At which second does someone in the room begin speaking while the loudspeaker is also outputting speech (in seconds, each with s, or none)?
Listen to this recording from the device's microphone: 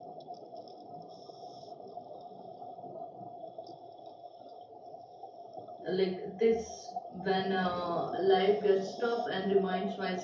5.8 s